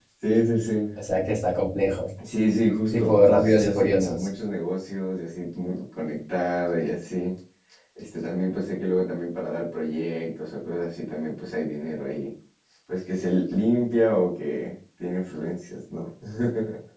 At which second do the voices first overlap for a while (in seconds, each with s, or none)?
3.0 s